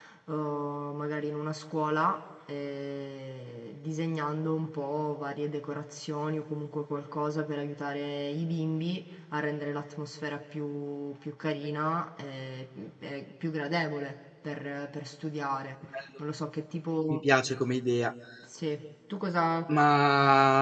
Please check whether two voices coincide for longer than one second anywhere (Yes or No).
No